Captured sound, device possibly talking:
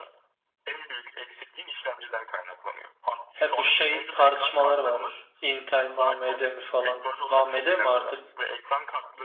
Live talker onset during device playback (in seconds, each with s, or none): 3.4 s